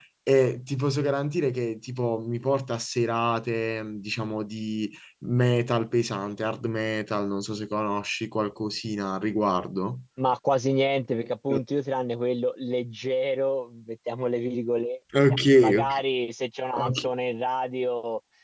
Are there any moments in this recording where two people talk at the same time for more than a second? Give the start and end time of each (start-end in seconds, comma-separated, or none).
none